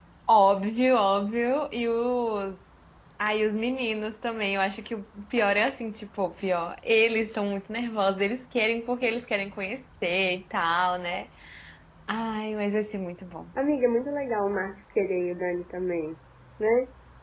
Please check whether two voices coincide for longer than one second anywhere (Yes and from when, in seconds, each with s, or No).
No